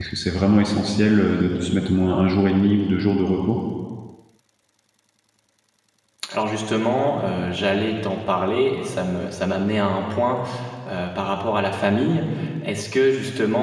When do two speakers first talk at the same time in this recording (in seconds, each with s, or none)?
none